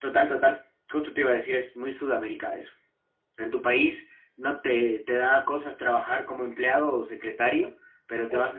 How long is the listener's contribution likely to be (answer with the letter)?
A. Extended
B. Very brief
B